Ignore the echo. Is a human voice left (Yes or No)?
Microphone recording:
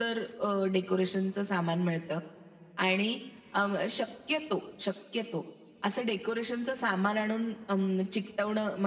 No